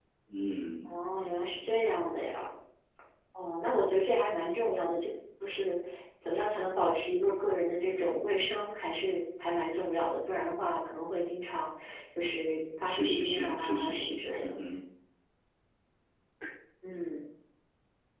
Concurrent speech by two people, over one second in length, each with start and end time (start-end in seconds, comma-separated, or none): 12.8-14.6